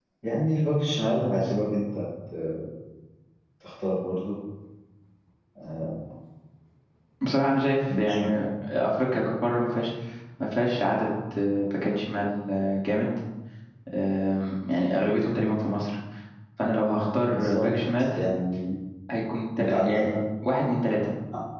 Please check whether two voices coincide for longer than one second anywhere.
No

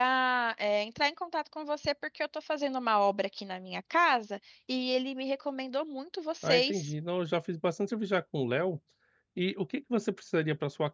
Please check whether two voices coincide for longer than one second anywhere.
No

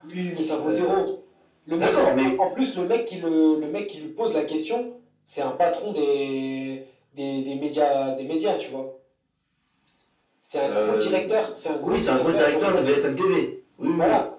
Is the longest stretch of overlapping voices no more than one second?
No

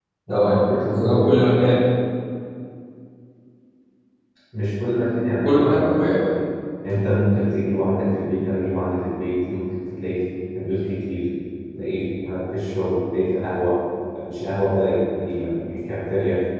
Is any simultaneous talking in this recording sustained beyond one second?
Yes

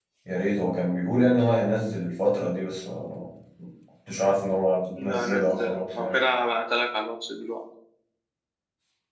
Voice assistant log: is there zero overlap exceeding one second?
No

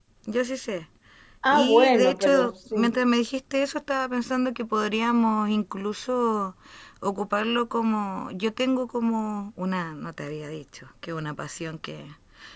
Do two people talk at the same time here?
Yes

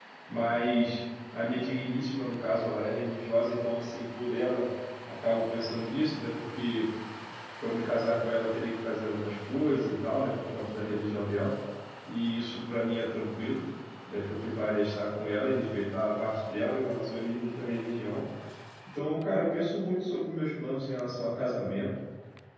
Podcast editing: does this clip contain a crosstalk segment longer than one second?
No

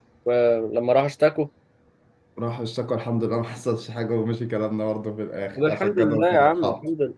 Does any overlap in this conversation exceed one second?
Yes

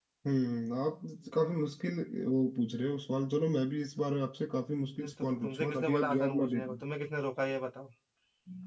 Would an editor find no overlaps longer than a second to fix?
No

